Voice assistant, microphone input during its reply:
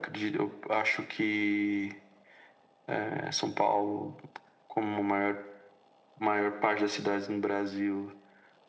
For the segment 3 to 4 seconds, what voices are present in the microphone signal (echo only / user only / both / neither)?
echo only